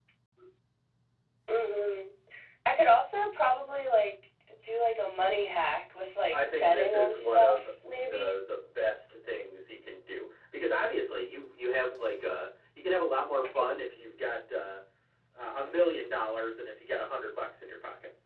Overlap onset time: 6.2 s

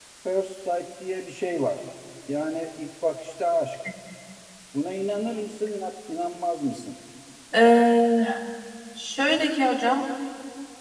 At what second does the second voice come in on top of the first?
none

